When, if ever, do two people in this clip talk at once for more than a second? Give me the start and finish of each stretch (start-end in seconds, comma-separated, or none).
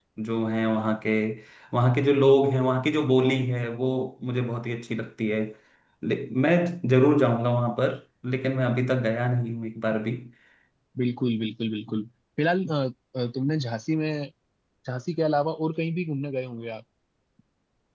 none